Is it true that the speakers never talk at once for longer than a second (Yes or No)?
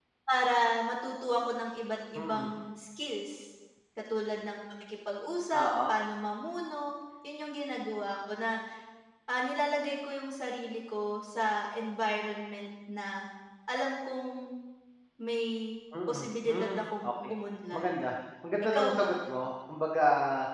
No